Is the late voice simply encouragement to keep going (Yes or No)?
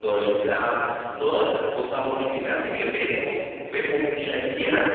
No